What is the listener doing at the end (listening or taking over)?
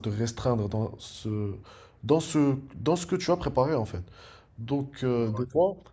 listening